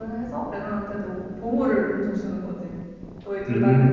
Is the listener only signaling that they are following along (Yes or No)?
No